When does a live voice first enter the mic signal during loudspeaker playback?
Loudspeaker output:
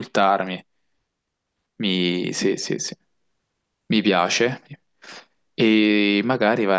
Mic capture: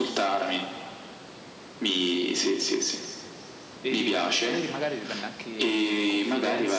3.8 s

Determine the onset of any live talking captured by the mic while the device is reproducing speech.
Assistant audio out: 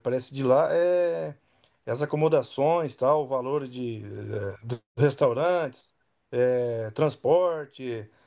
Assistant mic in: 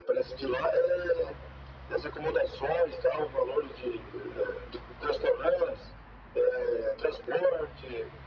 none

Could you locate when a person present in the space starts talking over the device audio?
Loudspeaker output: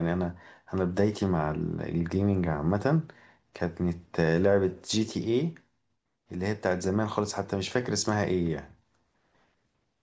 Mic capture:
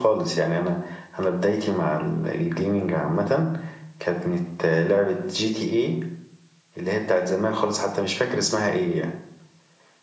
none

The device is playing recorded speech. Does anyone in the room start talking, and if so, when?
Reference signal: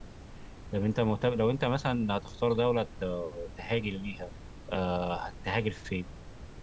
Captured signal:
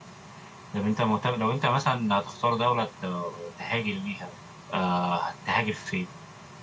none

